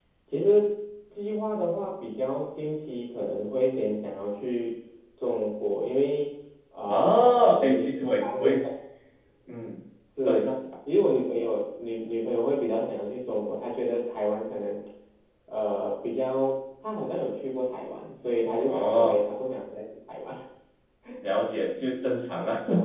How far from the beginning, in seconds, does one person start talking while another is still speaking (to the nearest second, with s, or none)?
7 s